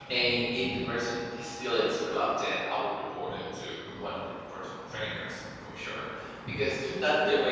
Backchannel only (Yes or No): Yes